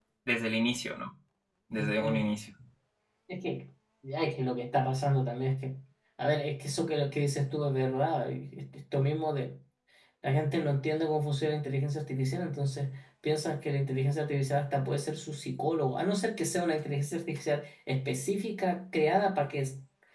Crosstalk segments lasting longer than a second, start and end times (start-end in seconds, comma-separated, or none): none